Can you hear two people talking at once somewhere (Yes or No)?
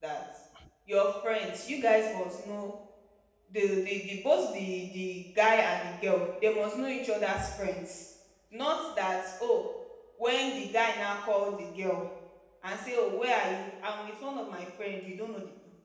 No